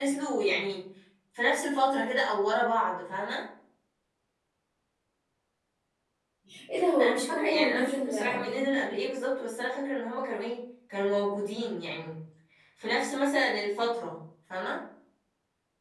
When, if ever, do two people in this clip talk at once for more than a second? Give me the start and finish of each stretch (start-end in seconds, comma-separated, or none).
7.0-8.7